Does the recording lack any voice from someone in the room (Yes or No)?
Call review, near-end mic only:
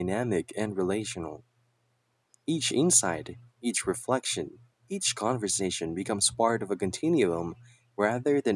No